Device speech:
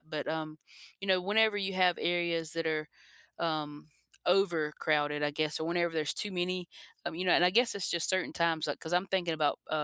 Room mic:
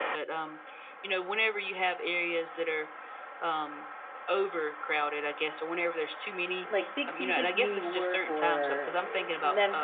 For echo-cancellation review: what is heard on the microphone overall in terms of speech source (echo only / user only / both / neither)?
both